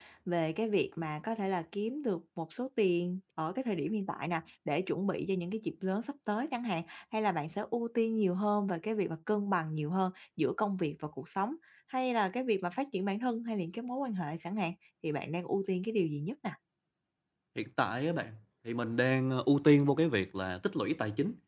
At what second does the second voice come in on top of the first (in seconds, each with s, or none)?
none